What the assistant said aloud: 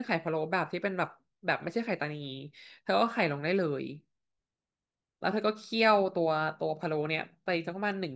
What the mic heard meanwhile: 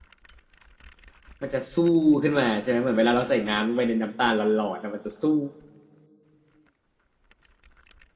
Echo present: No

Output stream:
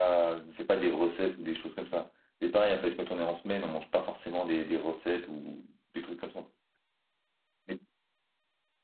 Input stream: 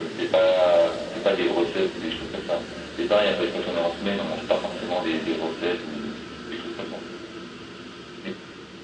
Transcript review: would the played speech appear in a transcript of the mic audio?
Yes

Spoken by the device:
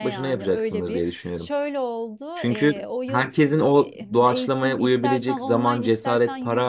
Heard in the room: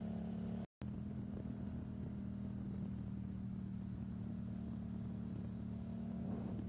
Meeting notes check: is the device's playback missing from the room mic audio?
Yes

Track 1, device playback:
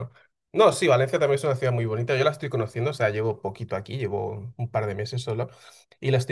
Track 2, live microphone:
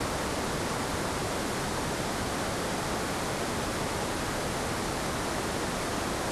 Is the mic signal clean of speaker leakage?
Yes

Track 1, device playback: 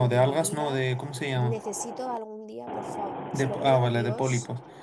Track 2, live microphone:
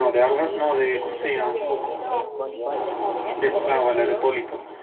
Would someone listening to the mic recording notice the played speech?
Yes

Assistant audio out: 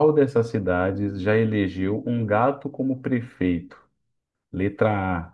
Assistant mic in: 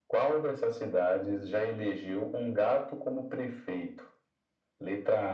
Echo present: Yes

